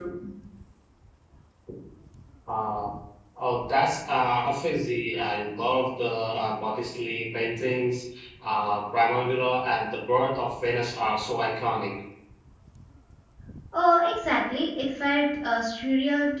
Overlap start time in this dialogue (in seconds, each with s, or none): none